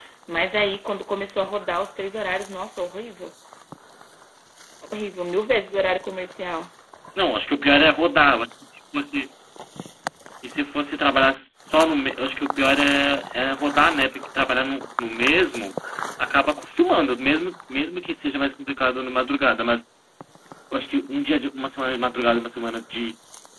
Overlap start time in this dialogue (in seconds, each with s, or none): none